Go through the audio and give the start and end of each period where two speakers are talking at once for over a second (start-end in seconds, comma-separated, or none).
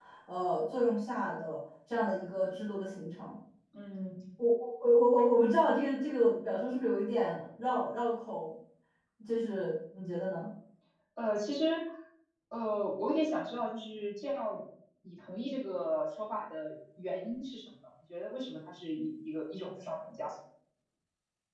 none